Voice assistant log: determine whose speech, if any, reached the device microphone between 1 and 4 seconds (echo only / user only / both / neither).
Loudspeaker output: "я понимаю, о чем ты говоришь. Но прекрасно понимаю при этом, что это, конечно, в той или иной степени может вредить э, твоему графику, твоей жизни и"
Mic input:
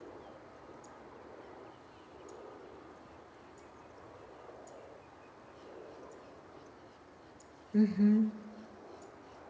neither